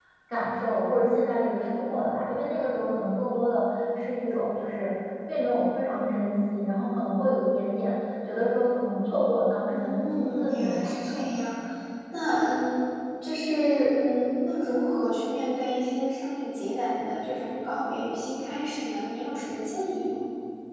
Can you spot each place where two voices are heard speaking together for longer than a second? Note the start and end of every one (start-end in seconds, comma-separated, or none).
9.7-11.2